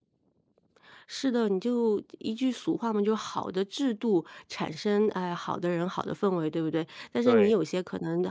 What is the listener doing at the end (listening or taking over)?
listening